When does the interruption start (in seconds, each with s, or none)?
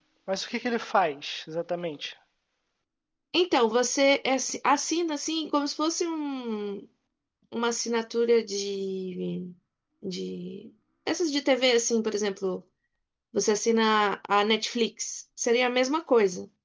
none